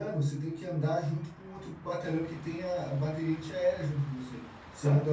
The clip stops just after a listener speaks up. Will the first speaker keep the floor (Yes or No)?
Yes